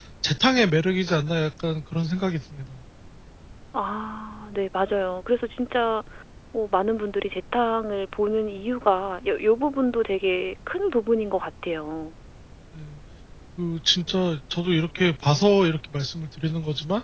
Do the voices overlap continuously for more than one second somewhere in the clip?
No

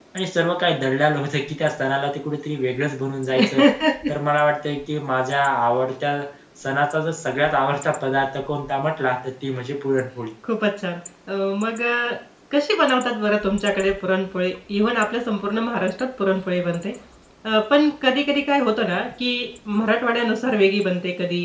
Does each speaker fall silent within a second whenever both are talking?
Yes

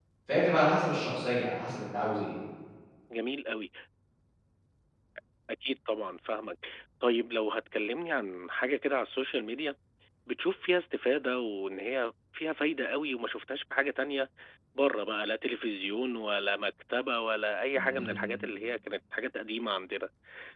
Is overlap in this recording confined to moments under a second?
Yes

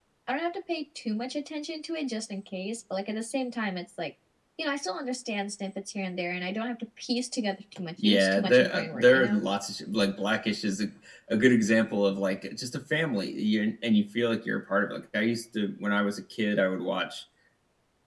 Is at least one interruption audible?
Yes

